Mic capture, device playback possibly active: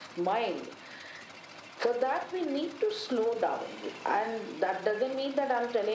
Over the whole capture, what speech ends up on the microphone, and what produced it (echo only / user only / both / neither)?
echo only